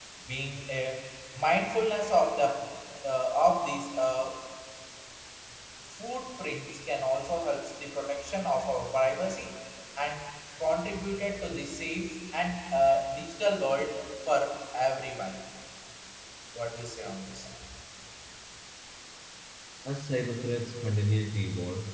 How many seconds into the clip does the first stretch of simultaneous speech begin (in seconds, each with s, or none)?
none